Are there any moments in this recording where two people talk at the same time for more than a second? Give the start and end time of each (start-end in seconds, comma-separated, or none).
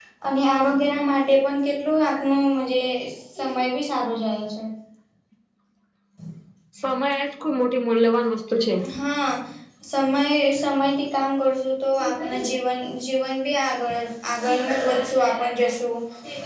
none